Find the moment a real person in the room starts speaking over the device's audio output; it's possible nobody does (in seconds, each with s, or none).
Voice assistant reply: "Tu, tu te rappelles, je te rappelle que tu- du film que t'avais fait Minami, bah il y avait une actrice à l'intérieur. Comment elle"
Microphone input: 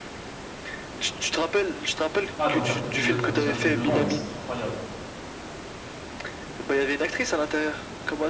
2.4 s